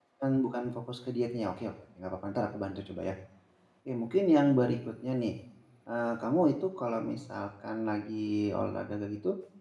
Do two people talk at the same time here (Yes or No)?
No